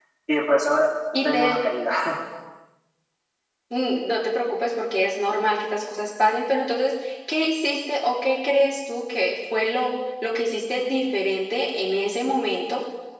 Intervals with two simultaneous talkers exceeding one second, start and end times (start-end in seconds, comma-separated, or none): none